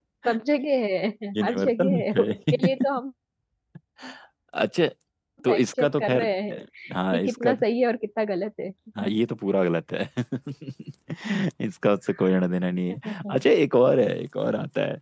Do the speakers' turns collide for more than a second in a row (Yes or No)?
Yes